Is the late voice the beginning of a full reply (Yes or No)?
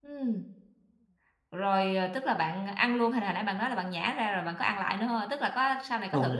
Yes